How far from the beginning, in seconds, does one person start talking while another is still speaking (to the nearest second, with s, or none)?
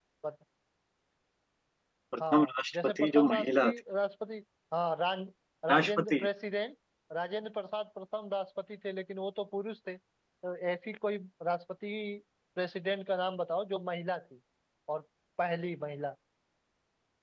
2 s